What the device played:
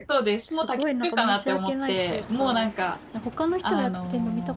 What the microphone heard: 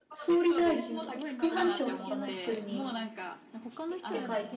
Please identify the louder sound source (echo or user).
user